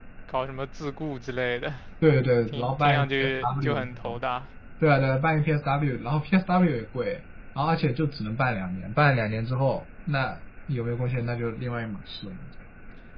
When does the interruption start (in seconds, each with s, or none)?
2.5 s